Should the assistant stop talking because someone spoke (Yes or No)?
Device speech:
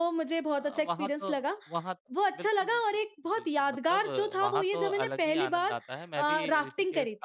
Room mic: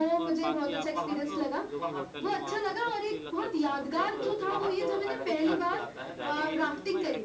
Yes